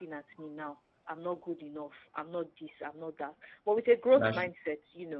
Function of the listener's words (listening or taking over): listening